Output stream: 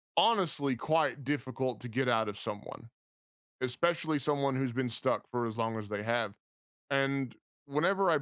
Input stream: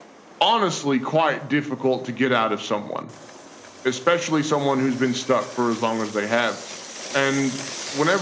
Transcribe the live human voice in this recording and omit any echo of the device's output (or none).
none